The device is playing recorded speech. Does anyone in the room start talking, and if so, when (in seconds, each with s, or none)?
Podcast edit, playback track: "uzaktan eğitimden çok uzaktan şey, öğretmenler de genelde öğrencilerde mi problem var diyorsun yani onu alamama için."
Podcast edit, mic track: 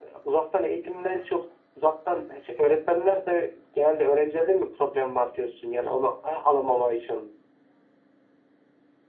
none